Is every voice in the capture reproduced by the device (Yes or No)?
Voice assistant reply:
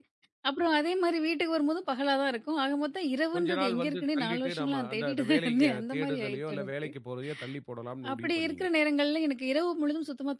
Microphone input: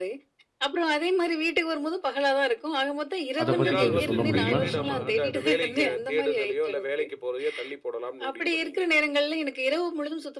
No